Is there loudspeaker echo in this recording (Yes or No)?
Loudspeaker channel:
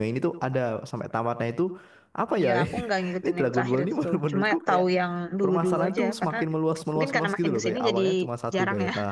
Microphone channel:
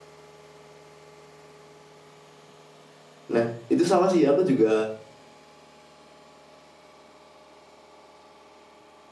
No